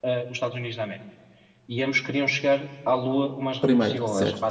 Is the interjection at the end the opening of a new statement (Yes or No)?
No